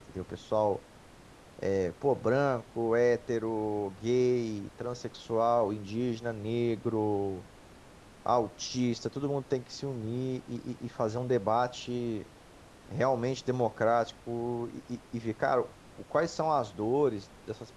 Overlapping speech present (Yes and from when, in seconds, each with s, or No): No